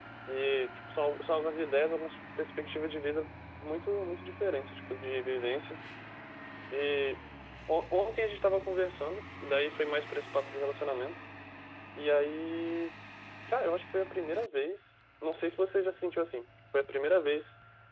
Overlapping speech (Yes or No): No